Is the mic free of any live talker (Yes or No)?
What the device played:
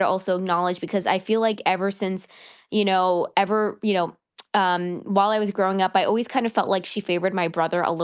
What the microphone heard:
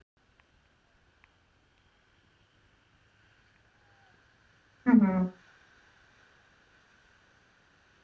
No